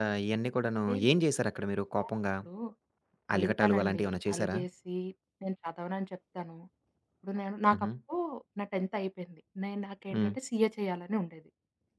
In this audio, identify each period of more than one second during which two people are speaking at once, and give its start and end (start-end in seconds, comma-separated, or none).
3.4-4.6